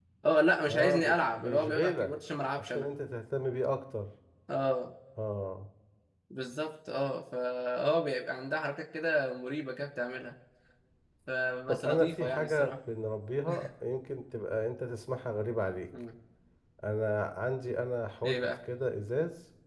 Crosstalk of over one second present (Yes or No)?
Yes